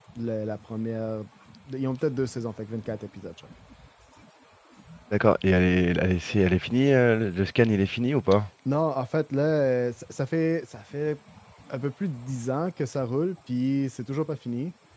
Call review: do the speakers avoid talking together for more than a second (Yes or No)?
Yes